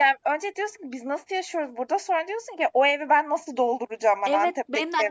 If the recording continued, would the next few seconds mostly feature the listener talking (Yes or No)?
Yes